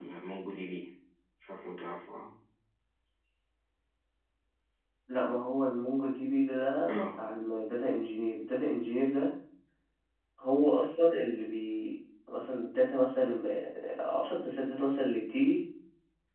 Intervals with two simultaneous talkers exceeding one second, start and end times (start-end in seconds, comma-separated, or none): none